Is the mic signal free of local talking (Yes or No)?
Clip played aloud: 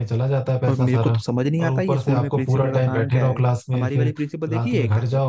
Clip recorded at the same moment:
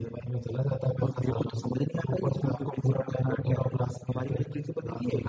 Yes